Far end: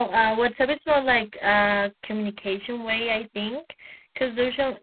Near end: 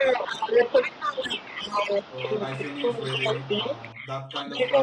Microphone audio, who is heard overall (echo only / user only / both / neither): both